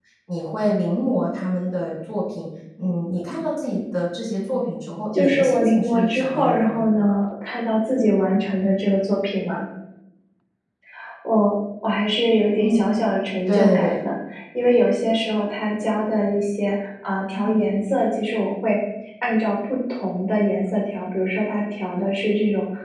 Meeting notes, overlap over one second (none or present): present